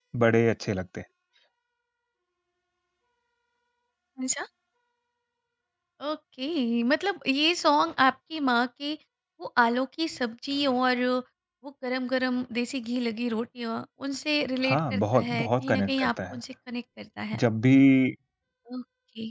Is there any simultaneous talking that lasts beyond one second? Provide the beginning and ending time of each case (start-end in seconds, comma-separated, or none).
14.6-16.4